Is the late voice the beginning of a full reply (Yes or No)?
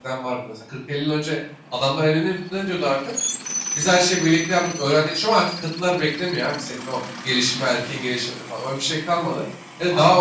Yes